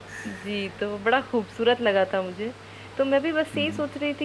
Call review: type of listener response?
listening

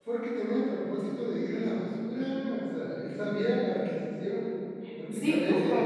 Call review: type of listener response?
taking over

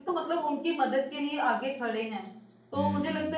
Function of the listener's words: listening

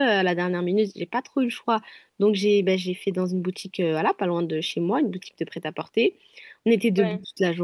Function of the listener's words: listening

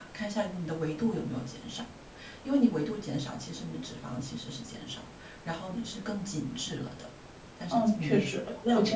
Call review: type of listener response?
taking over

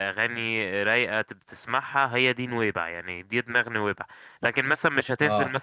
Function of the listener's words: taking over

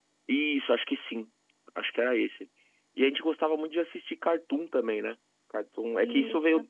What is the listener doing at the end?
listening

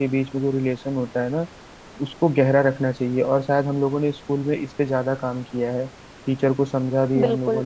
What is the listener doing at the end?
listening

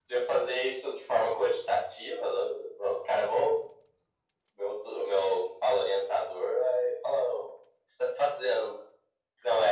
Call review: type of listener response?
listening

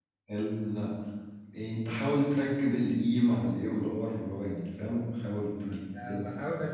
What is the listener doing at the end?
taking over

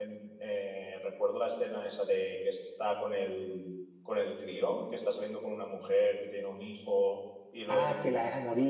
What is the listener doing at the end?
taking over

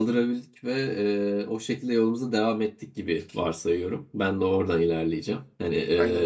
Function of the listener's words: listening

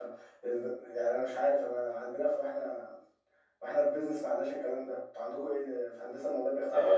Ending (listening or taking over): taking over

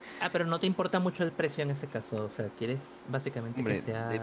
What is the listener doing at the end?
taking over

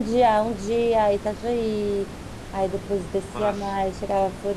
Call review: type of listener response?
listening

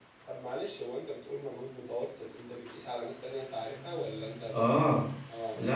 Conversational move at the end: taking over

